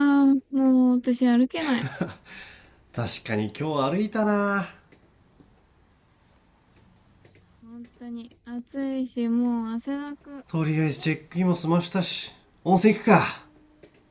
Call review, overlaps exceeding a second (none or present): none